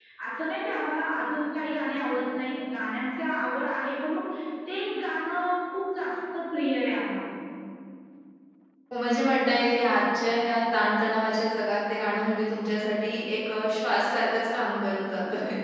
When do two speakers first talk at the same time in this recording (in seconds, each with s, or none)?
none